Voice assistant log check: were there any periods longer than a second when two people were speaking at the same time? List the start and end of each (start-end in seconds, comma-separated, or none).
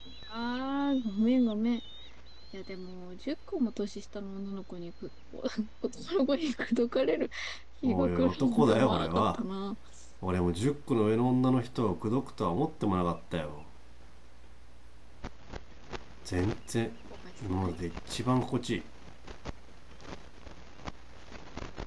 7.8-9.4